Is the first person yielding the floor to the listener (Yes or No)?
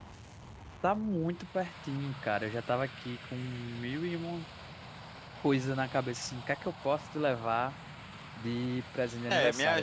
Yes